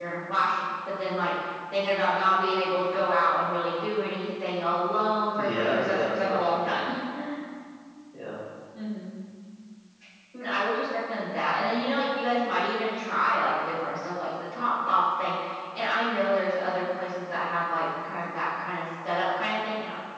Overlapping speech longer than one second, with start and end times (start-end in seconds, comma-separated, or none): 5.4-6.8